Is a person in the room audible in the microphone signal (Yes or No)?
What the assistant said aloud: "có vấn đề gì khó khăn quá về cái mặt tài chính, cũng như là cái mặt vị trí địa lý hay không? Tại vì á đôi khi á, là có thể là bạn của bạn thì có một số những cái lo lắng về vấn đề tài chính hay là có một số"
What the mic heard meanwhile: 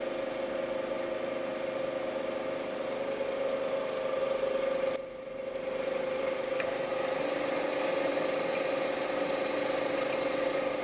No